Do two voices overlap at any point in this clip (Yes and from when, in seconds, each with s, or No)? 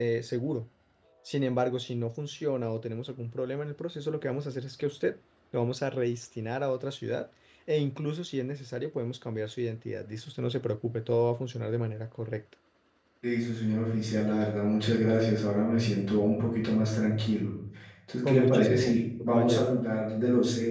Yes, from 18.2 s